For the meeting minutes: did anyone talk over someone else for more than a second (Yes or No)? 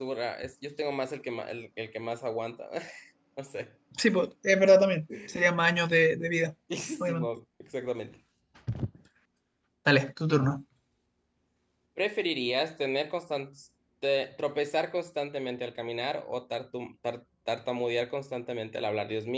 No